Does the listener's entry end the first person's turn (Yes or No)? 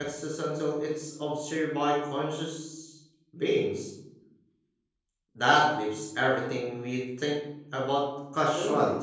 Yes